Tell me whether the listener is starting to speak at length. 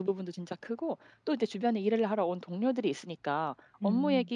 No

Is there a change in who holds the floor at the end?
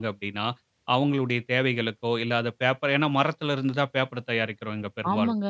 Yes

